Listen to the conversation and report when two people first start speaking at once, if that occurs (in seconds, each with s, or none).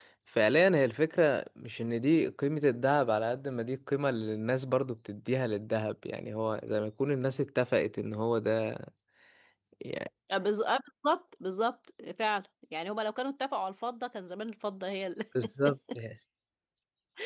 none